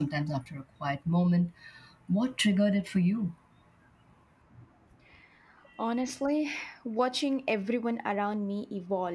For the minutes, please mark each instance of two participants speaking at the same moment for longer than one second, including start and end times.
none

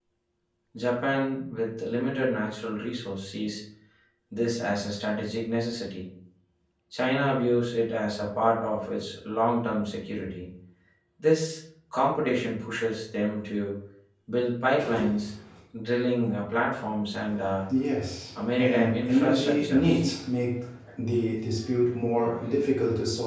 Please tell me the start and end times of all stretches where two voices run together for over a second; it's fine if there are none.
18.6-20.0

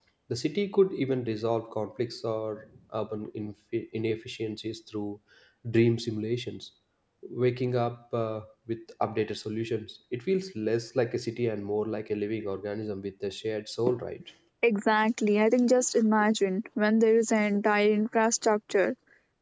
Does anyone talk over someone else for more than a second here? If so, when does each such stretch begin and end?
none

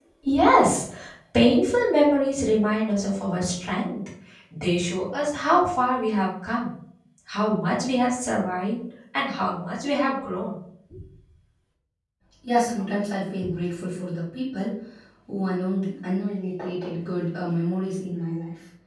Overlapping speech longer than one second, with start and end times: none

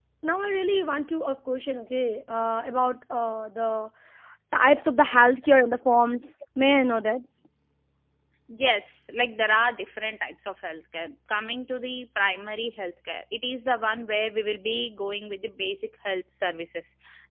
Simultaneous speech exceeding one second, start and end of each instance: none

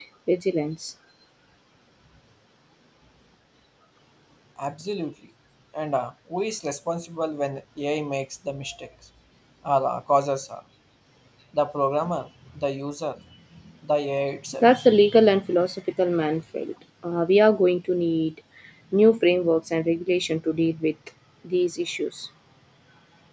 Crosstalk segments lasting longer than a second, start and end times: none

